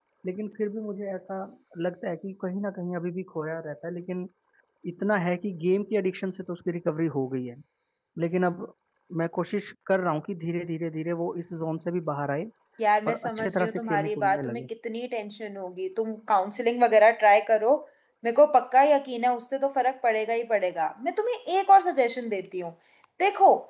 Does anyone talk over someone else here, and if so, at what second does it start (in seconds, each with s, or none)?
13.1 s